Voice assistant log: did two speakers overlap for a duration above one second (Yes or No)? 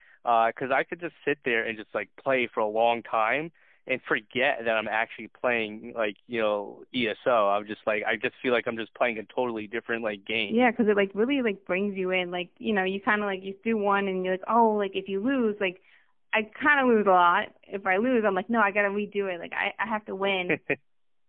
No